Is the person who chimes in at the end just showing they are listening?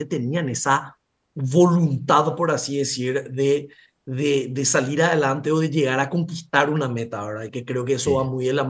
Yes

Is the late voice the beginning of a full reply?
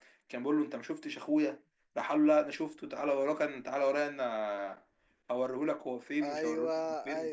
Yes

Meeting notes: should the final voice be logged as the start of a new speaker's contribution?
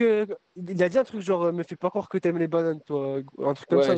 Yes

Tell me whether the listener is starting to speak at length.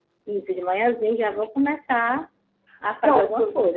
Yes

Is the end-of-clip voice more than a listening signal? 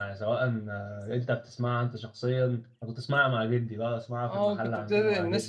Yes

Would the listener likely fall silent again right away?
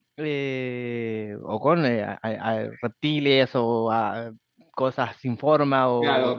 No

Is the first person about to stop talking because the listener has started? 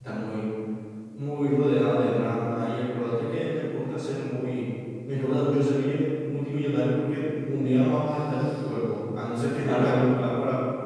No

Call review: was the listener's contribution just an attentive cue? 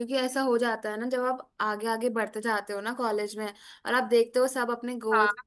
Yes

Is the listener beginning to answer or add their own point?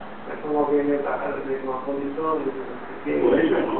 Yes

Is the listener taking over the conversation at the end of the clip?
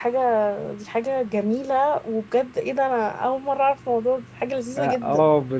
Yes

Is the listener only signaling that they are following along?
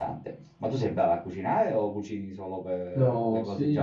No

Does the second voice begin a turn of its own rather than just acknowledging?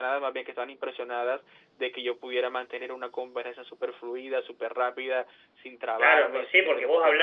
Yes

